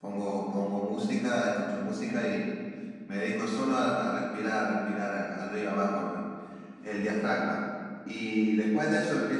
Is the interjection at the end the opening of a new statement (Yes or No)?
No